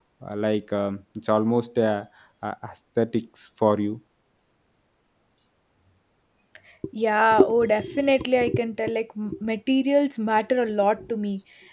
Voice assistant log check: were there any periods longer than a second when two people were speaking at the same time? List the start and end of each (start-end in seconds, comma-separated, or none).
none